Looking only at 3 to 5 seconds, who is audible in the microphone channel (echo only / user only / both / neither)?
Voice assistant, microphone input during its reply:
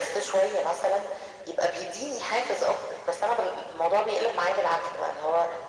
echo only